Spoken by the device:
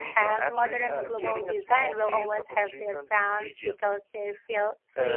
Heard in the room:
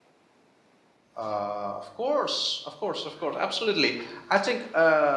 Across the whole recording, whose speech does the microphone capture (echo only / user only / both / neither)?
user only